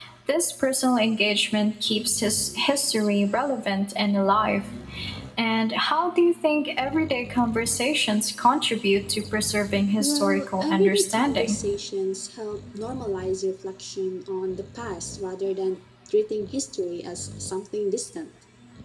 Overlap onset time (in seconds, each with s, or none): 10.0 s